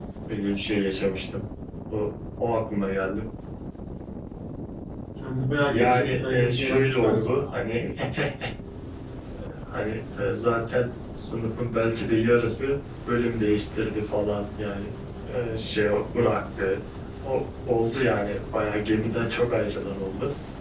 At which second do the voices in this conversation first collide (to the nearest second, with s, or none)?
6 s